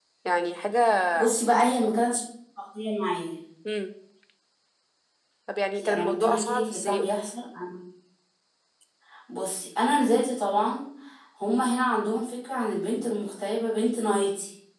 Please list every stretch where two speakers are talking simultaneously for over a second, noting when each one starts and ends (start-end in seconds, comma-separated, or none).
5.8-7.2